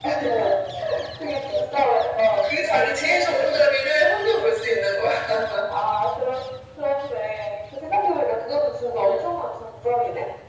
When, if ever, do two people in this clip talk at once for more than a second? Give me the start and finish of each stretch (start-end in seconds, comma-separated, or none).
none